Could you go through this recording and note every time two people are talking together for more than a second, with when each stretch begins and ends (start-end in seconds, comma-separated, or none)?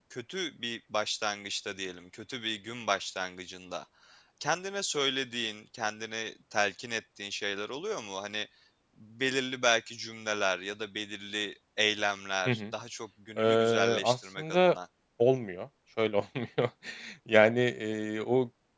13.4-14.8